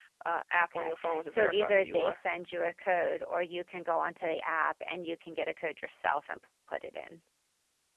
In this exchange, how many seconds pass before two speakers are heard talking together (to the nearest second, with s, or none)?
1 s